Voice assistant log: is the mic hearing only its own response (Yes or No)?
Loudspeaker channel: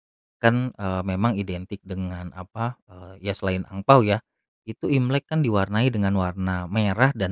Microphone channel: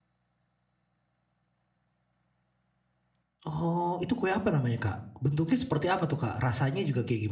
No